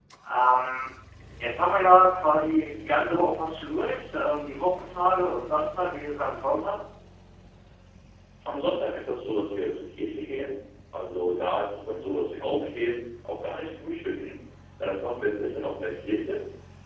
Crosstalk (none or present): none